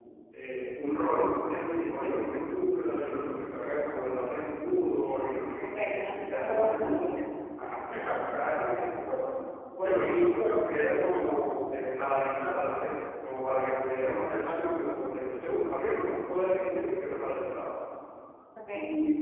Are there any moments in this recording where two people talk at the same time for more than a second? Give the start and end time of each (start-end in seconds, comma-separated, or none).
5.6-7.0